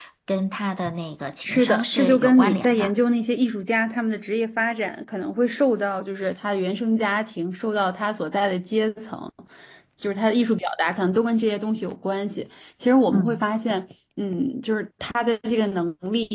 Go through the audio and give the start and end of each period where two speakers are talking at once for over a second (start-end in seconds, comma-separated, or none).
1.4-2.9